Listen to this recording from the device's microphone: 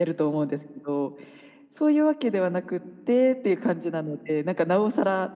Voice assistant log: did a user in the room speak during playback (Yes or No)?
No